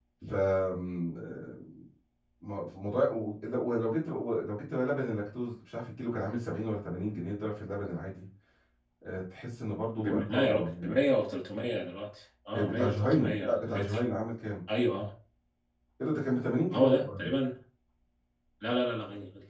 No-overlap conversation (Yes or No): No